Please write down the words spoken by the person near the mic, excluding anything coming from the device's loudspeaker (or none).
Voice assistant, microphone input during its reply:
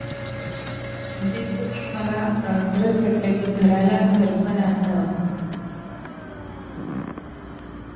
म्हणजे ते एक मला अ, खरंच पटलं, की घराला घरपण आणणं